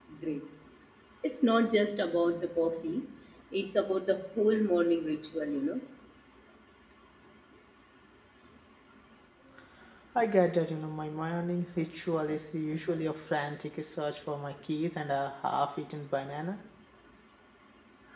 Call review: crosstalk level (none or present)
none